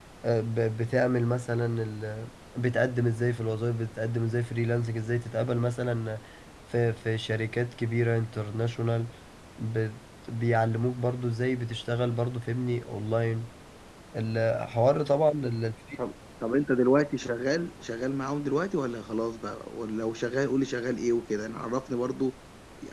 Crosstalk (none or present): none